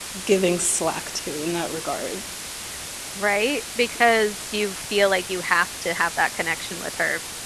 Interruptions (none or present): none